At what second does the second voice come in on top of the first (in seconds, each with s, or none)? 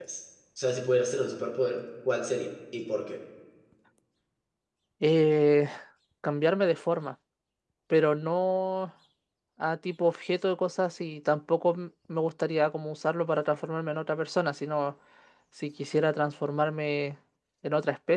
none